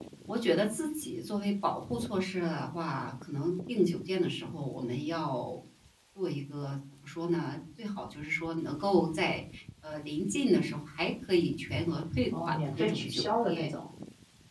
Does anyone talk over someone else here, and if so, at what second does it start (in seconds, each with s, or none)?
12.3 s